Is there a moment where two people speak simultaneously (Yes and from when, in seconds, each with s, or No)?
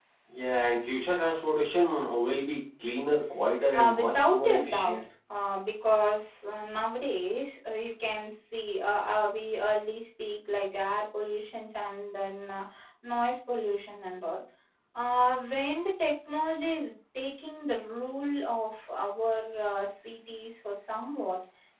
Yes, from 3.7 s